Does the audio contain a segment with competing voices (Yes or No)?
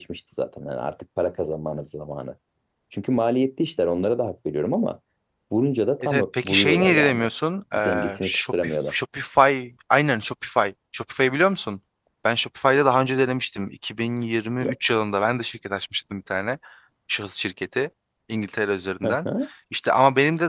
Yes